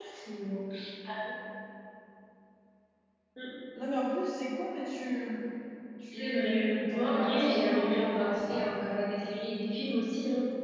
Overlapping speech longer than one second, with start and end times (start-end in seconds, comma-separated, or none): 6.1-8.6